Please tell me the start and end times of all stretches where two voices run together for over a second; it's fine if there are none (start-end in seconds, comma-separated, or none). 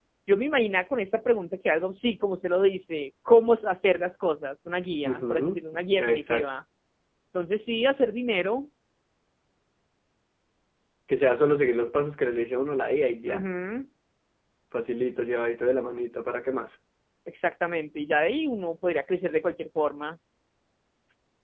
5.0-6.5